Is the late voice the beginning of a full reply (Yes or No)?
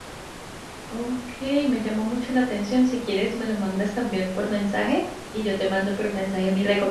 No